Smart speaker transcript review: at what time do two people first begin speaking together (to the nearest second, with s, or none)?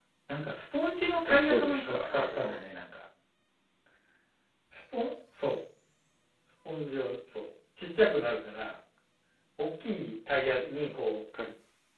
1 s